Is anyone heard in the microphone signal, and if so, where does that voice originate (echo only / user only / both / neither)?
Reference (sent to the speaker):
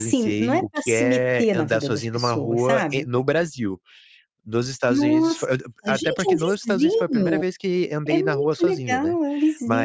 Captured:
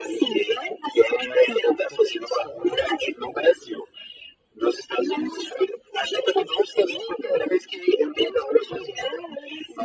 echo only